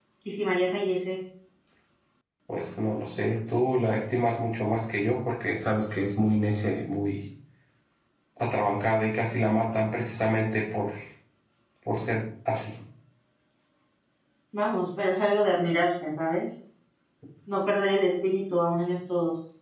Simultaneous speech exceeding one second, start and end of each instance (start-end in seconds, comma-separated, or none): none